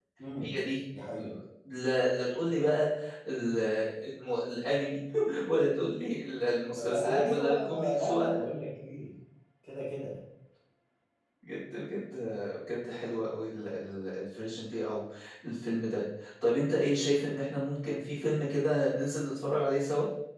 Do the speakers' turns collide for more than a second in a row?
Yes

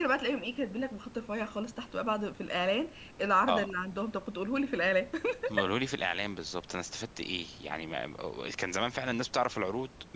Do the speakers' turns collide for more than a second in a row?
No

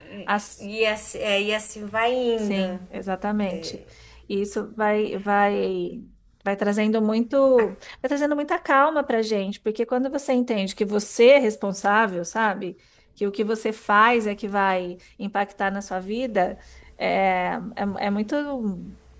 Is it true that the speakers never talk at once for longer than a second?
Yes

